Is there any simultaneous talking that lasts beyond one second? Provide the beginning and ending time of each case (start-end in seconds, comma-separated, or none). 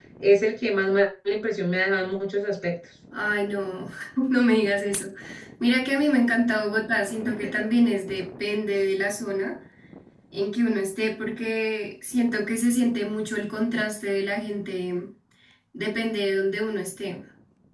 none